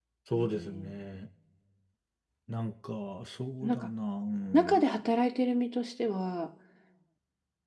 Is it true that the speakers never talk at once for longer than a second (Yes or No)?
Yes